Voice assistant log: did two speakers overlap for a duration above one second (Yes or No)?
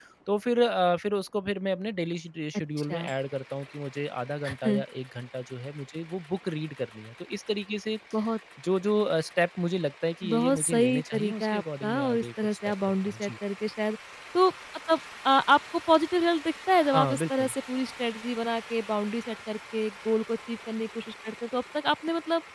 Yes